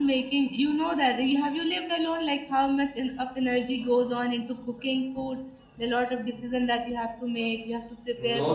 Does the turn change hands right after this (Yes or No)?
Yes